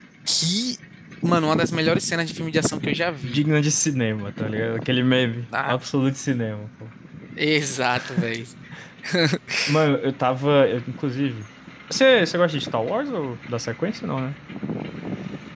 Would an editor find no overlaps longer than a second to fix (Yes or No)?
Yes